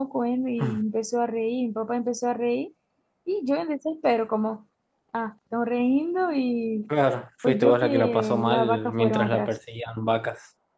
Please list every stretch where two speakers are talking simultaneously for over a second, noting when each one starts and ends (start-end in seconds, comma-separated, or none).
7.5-9.5